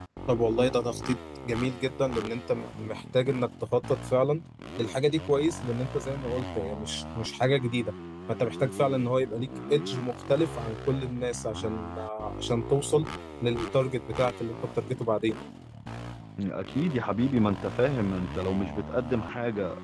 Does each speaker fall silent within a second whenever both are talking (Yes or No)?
Yes